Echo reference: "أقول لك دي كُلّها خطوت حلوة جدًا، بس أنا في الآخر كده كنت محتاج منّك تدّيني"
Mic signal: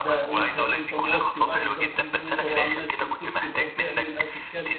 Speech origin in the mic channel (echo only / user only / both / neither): both